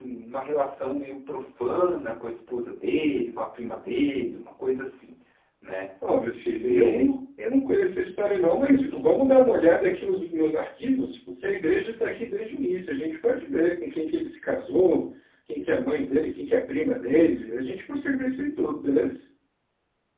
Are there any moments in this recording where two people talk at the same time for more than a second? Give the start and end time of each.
none

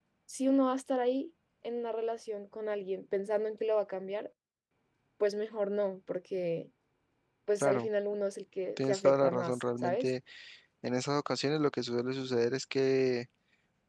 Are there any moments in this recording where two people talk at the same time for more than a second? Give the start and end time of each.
8.8-10.1

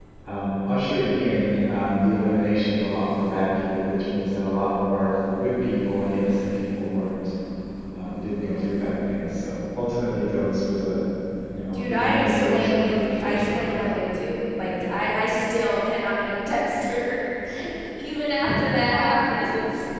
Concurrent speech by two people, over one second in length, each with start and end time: 11.7-13.9

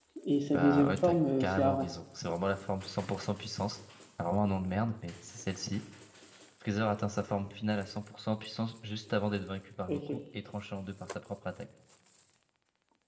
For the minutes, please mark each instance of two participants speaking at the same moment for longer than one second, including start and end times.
0.5-1.9

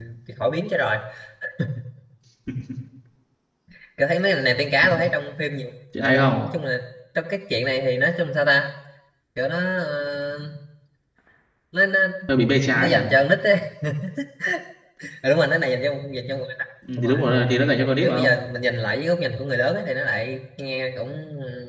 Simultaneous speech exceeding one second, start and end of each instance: none

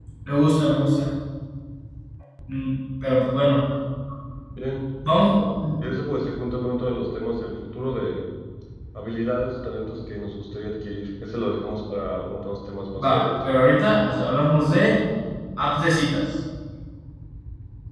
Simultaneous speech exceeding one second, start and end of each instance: none

